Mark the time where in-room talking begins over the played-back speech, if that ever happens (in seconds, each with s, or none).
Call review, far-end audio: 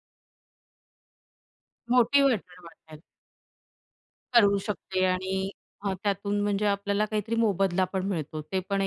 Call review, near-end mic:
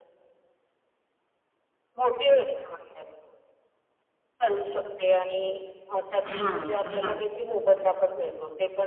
6.2 s